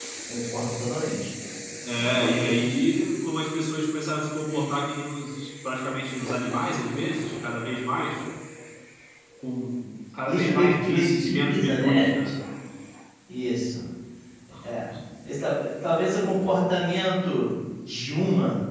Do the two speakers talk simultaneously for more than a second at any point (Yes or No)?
Yes